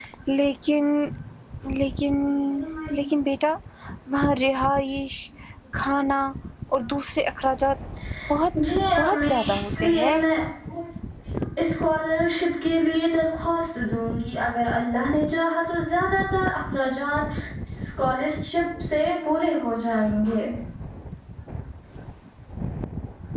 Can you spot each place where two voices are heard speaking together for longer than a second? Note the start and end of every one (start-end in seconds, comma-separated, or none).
9.0-10.2